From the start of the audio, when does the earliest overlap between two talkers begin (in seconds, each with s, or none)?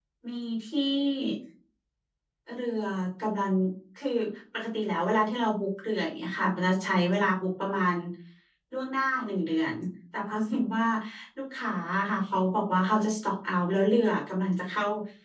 none